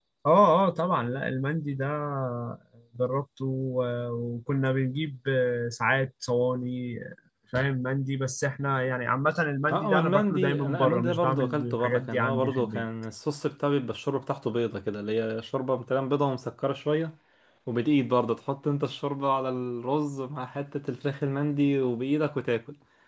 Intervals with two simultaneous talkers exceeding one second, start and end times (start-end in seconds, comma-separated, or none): 9.7-12.9